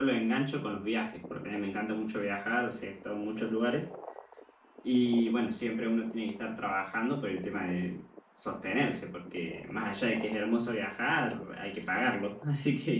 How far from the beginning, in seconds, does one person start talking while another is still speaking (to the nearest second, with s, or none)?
none